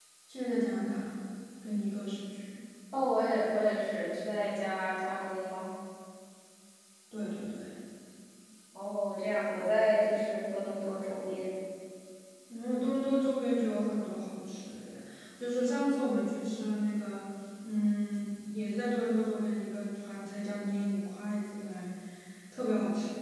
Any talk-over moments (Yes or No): No